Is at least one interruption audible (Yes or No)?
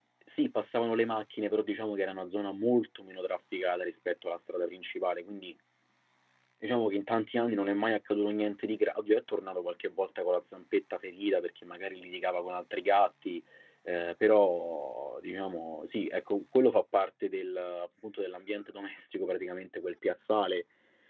No